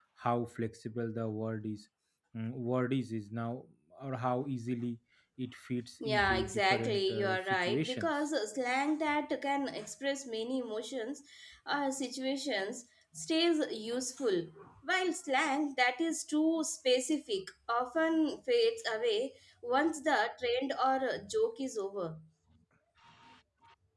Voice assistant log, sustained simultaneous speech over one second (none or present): present